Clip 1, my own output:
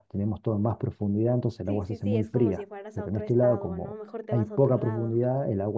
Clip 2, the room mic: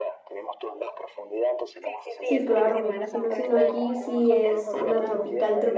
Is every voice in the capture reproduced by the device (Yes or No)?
No